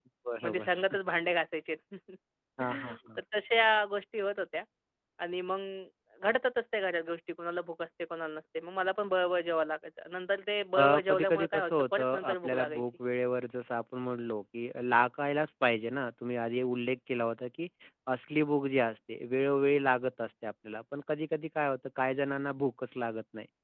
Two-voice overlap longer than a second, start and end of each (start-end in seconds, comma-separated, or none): 10.8-12.8